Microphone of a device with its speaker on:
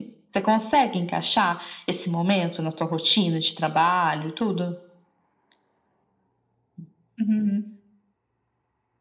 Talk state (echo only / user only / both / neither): echo only